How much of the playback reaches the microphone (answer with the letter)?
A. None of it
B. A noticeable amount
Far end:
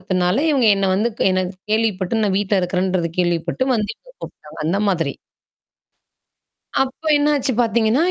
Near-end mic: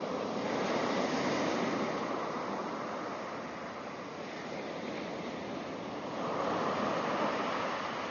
A